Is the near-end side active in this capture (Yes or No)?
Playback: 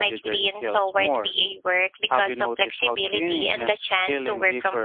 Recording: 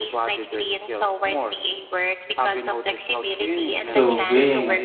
Yes